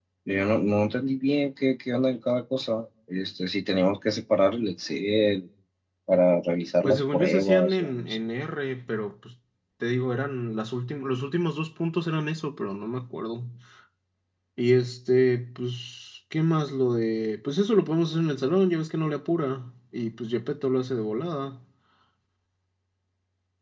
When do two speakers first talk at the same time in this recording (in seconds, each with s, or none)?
6.8 s